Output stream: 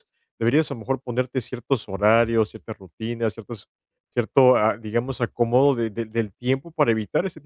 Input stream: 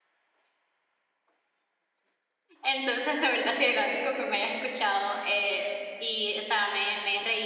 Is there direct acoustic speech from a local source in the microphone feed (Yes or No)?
Yes